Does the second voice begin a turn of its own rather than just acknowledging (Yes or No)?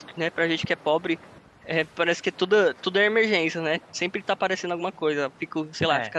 No